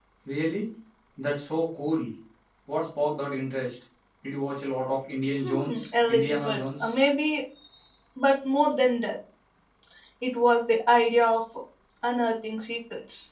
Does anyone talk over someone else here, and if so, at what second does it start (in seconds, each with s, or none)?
5.3 s